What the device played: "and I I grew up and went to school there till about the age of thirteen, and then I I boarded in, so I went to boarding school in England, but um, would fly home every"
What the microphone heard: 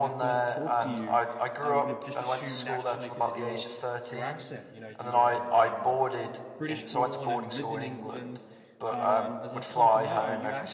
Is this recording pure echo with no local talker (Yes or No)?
No